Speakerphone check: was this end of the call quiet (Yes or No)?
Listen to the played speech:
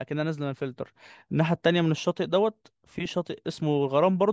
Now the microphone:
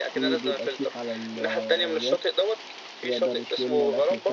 No